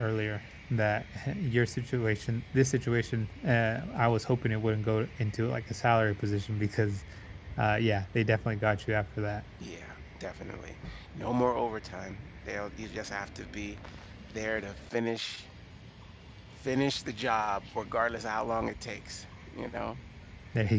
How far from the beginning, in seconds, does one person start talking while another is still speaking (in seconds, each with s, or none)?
none